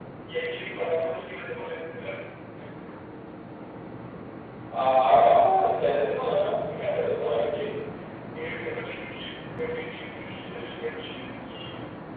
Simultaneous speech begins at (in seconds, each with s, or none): 6.0 s